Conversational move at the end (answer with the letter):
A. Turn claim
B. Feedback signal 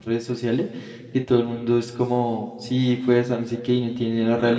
B